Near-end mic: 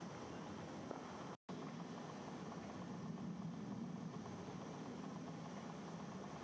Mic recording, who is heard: neither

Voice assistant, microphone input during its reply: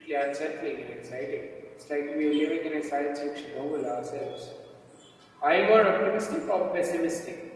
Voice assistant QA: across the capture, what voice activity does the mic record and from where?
user only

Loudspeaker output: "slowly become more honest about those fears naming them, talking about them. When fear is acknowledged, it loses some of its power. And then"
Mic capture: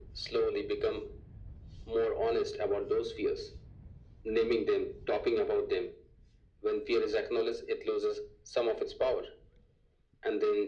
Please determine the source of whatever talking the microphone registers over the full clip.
echo only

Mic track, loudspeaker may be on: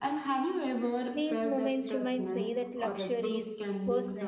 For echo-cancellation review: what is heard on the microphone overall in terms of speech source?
both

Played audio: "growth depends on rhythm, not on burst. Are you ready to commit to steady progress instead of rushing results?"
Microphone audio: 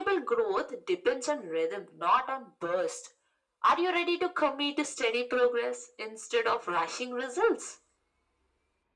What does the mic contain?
echo only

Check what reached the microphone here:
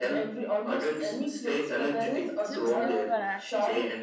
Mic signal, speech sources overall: both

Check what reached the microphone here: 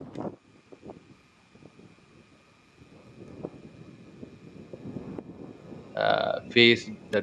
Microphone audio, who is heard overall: user only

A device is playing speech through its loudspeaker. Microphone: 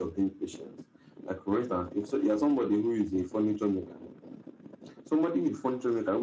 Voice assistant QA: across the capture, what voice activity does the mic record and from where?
echo only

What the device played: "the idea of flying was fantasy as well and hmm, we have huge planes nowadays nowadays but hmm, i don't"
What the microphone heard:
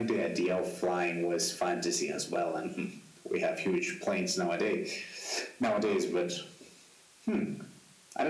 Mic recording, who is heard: echo only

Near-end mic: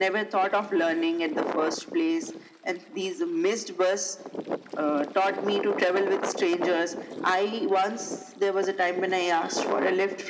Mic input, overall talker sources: echo only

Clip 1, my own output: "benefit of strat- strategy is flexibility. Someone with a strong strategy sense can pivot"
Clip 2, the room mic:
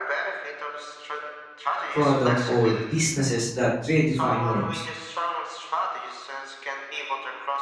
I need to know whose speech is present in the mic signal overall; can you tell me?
both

